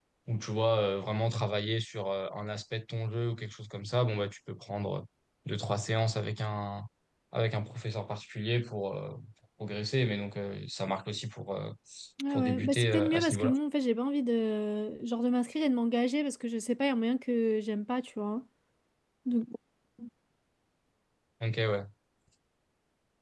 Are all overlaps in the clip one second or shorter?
No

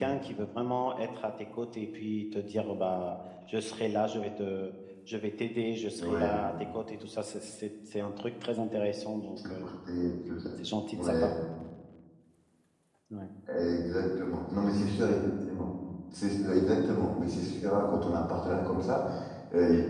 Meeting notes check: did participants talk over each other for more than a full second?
No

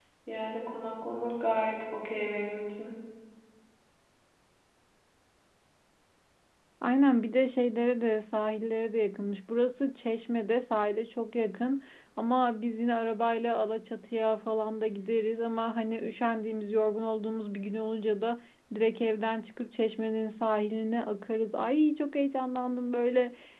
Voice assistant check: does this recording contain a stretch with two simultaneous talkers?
No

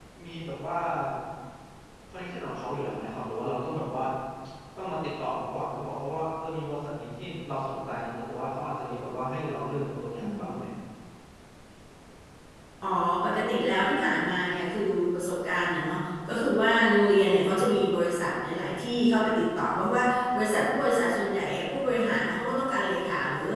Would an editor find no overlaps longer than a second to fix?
Yes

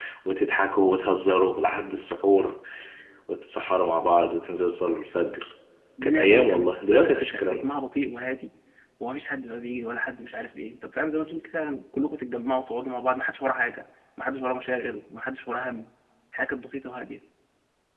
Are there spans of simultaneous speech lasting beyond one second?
Yes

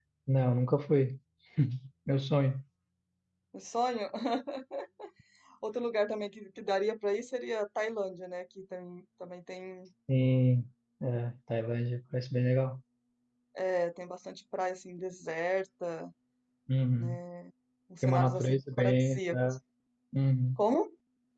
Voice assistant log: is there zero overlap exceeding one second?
No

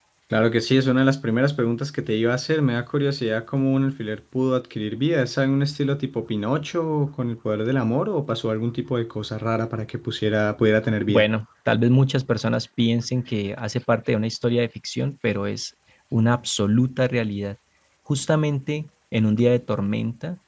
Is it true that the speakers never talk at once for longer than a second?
Yes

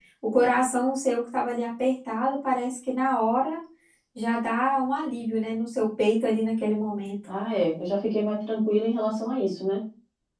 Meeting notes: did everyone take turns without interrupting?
Yes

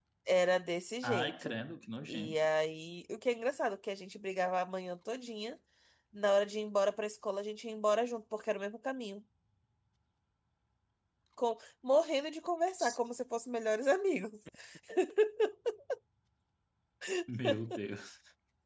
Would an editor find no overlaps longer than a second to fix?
Yes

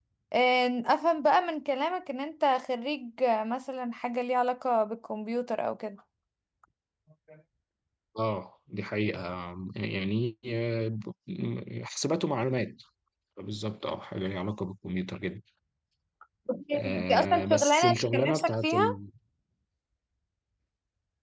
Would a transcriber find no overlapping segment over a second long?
No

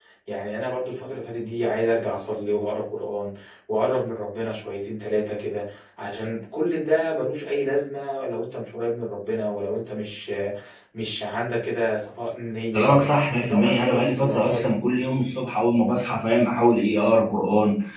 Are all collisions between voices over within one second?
No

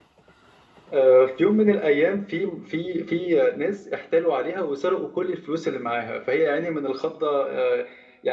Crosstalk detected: No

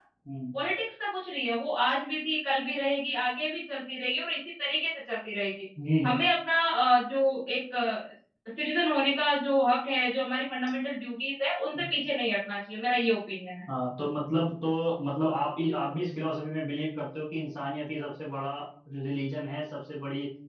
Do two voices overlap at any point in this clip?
No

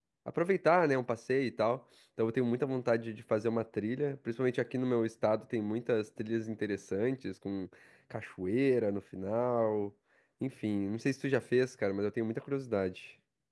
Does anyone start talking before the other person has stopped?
No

